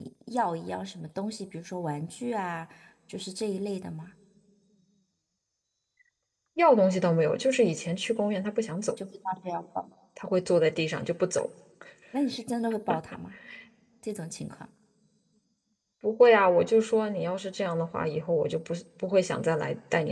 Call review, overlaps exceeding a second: none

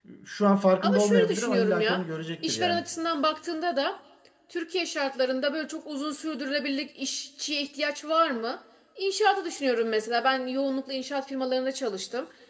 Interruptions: present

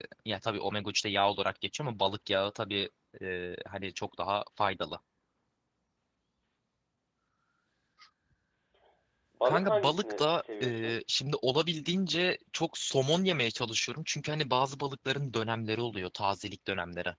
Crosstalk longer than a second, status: present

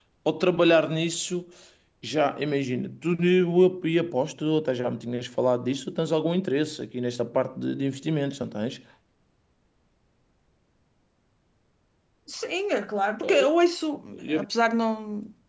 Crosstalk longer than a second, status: none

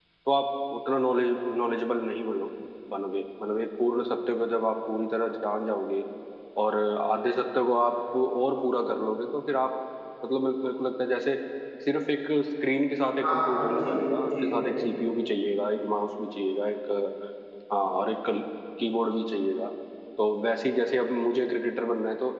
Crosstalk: present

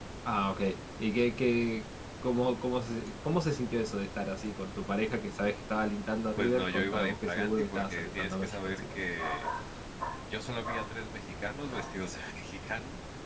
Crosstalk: present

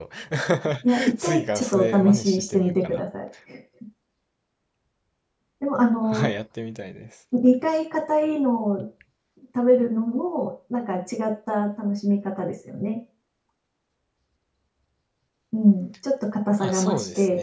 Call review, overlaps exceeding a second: present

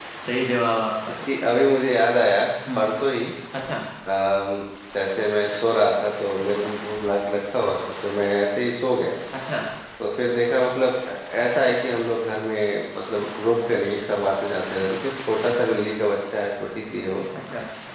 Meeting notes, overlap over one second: none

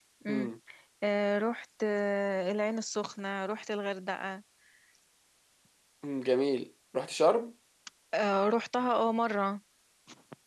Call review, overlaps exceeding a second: none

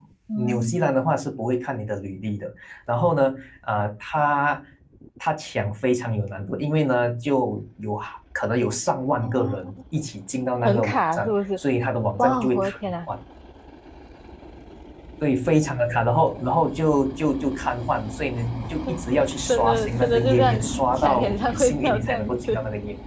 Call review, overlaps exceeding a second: present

